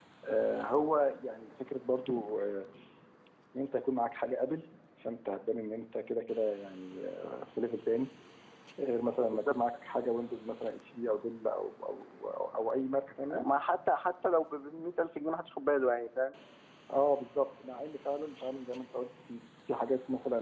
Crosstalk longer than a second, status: none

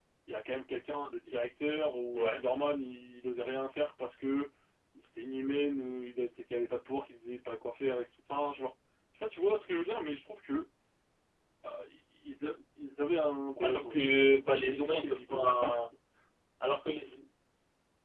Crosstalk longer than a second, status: present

